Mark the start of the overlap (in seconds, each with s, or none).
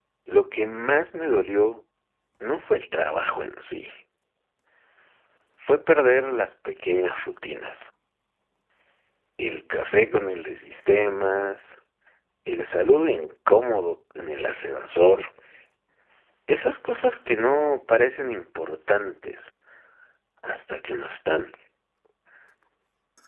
none